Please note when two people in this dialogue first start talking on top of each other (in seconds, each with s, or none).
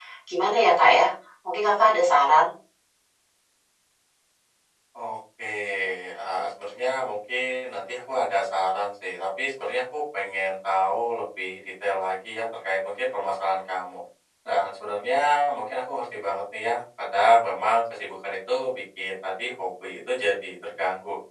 none